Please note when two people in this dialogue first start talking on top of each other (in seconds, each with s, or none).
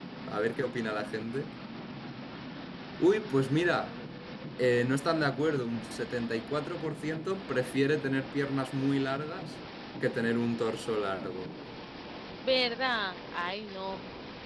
none